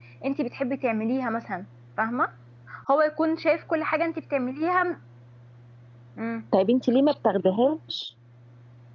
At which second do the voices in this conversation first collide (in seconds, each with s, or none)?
none